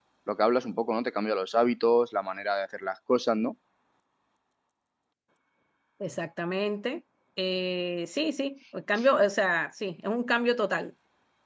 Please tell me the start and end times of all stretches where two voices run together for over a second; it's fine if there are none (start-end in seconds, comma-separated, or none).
none